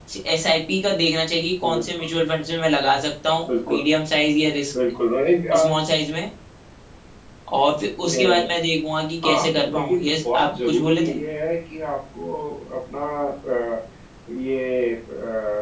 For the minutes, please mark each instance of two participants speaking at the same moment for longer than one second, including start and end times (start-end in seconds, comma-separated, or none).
9.2-11.2